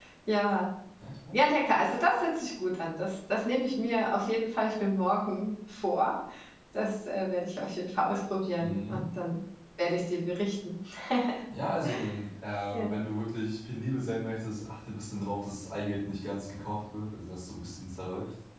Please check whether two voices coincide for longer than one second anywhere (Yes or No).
No